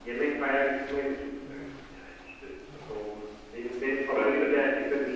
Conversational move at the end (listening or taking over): listening